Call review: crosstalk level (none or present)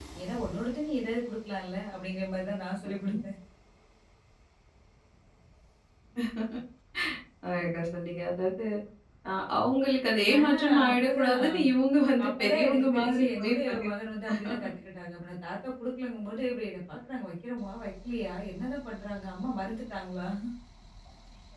present